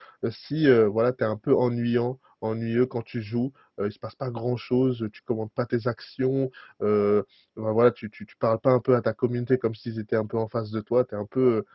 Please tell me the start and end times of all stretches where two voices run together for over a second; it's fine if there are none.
none

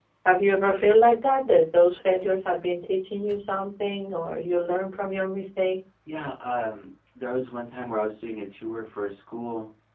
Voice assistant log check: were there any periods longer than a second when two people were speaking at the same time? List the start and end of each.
none

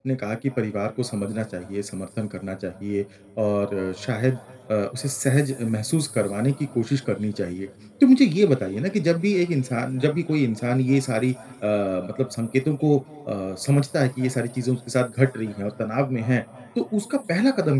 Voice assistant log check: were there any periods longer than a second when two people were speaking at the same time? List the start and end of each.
none

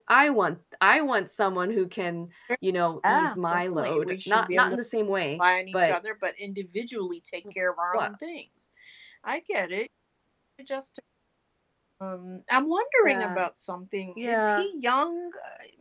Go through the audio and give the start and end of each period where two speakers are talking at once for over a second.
3.1-4.8

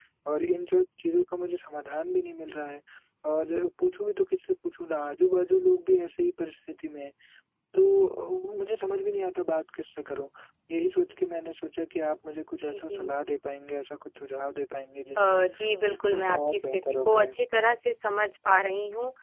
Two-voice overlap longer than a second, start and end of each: 16.1-17.3

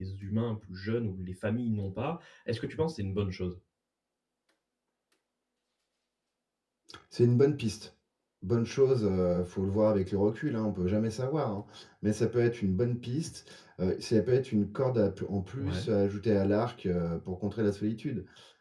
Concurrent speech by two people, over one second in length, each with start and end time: none

